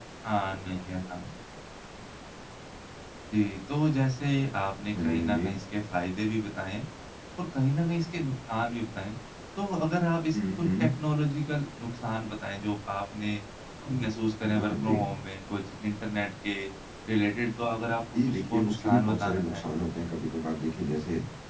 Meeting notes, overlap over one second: present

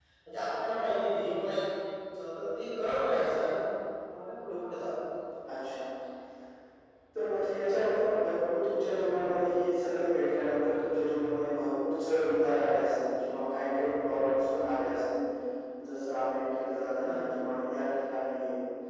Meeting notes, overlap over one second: none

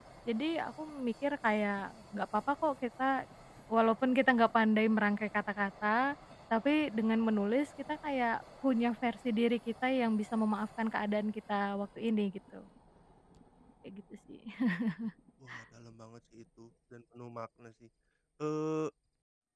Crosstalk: none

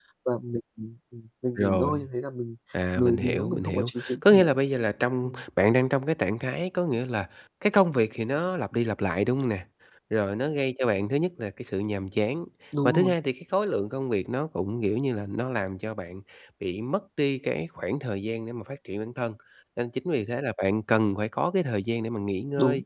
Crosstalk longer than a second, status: present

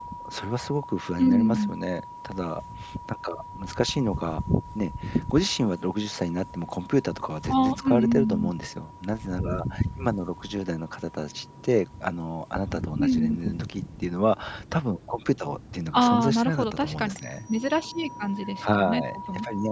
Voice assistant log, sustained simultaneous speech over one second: present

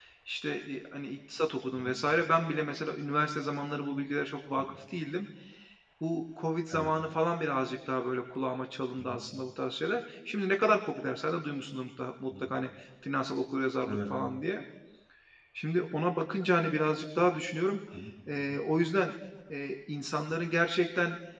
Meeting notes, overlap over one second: none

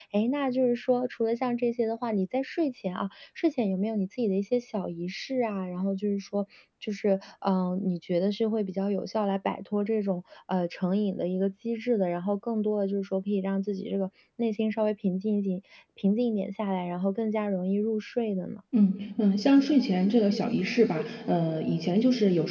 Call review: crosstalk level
none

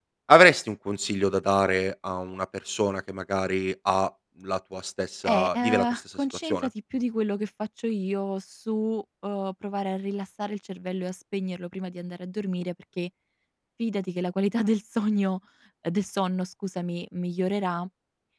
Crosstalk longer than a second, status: present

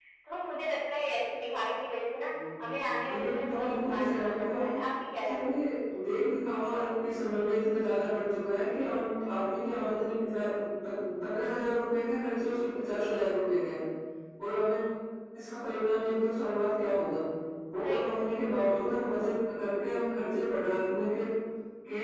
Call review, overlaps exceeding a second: present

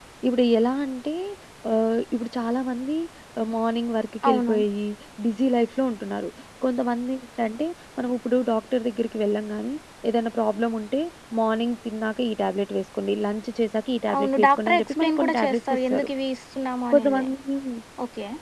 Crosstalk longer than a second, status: present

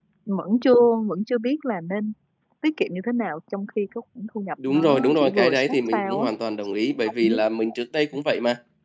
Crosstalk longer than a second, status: present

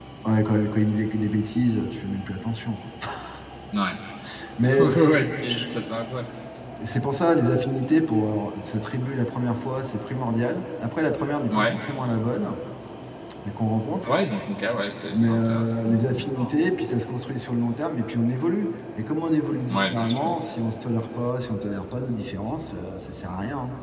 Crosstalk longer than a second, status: present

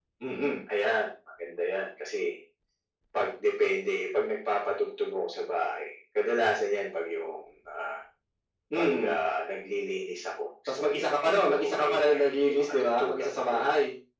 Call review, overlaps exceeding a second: present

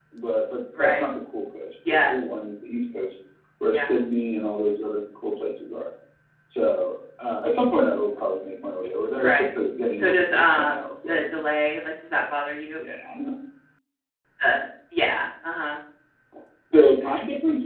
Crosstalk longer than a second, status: present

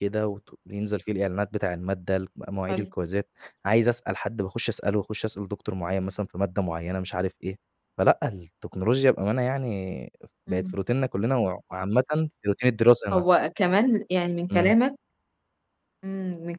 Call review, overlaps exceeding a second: none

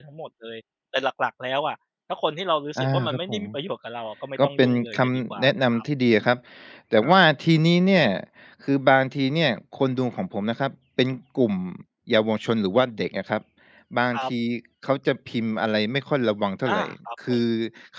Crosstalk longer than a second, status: present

